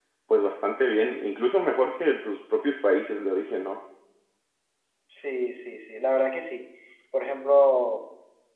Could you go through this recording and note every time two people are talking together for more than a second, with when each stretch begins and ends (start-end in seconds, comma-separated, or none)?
none